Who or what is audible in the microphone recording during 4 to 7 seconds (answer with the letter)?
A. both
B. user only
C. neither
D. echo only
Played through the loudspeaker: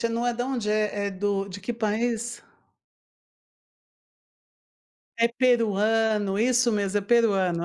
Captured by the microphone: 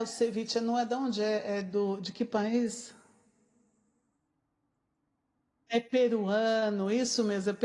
D